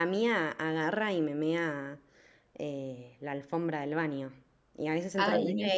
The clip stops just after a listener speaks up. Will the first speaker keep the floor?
Yes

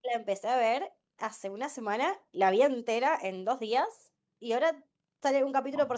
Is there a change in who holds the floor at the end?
No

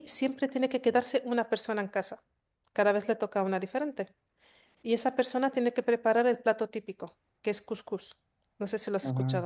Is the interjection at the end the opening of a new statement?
Yes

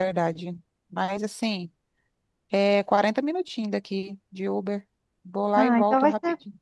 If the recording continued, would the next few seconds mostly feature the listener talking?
Yes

